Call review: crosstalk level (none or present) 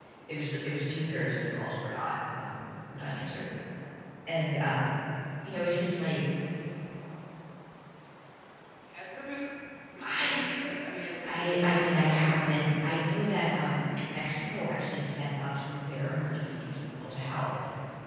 present